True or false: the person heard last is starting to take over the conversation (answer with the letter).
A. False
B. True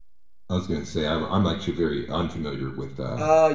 B